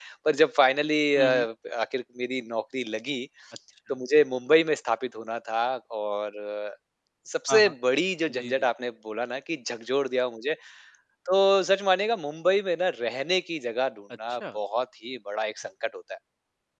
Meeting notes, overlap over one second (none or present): none